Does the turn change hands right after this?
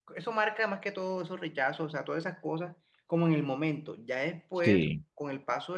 No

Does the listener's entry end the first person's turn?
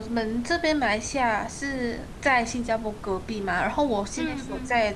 No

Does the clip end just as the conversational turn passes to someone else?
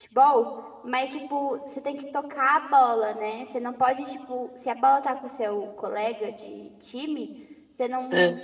No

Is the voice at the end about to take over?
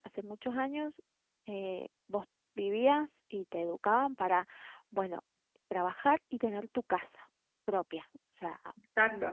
No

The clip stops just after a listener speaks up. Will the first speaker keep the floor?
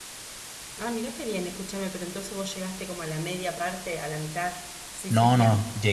No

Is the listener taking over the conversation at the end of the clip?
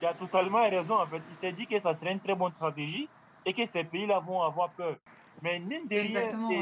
No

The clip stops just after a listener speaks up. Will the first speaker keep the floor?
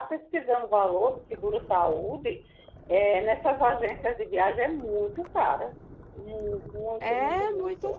No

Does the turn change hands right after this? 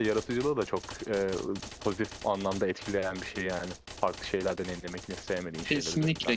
Yes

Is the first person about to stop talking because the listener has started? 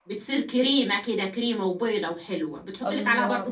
Yes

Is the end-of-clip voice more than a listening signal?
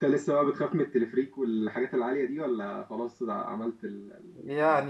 Yes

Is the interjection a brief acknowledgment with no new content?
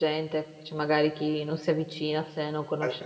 No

